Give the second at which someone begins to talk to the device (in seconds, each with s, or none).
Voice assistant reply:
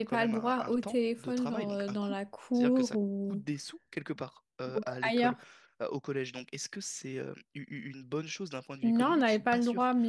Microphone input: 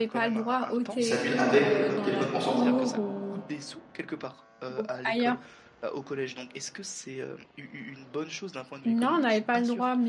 1.0 s